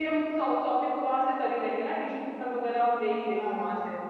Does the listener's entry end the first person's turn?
Yes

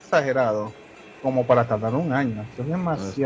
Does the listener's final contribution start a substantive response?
Yes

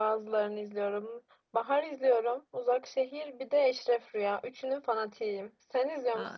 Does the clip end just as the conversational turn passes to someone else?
Yes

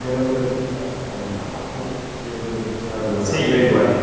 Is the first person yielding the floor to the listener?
Yes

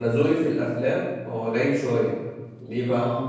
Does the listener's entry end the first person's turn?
No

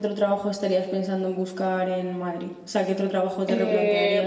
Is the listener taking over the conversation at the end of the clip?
Yes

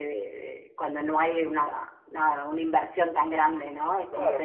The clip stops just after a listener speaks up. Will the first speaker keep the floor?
No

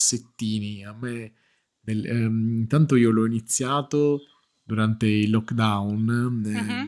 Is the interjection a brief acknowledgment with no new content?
Yes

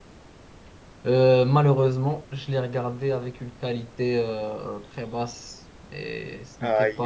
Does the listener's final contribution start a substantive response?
Yes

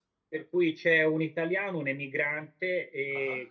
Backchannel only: Yes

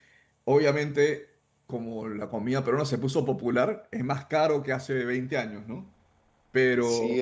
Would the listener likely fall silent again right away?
No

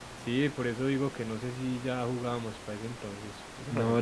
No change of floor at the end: No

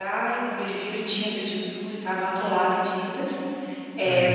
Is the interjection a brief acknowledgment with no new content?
Yes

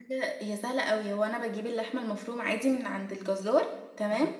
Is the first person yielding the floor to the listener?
No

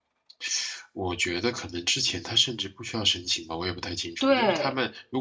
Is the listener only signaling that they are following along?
Yes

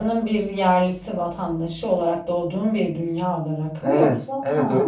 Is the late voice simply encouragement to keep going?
No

